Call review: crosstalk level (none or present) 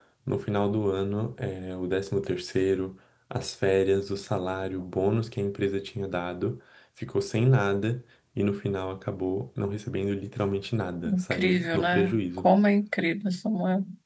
present